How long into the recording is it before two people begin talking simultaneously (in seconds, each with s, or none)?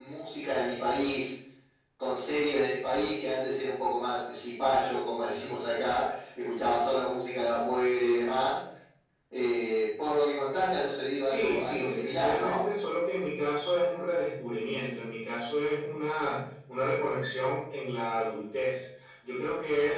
11.2 s